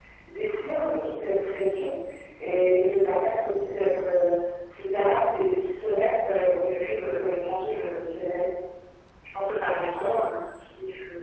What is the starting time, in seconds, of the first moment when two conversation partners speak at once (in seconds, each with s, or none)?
6.2 s